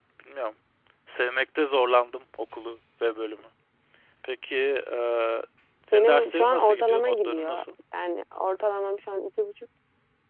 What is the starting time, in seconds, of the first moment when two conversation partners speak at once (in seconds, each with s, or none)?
5.9 s